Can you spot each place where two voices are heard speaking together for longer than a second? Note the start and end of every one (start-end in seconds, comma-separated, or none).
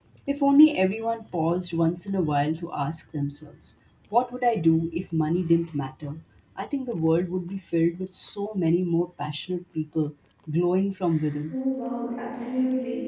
none